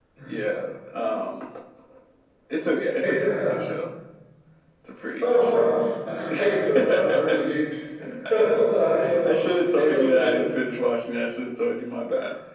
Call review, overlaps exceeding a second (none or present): present